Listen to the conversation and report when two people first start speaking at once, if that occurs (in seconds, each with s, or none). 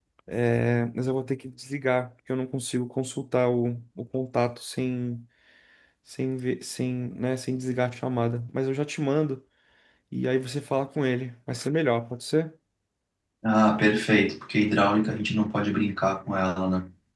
none